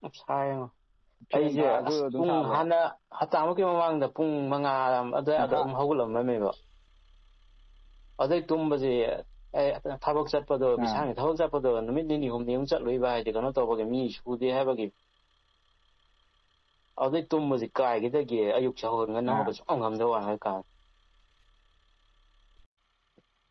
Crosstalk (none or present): present